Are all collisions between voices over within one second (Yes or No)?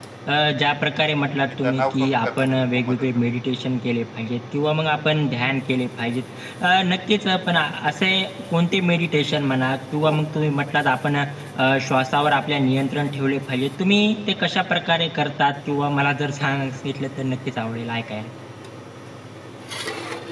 No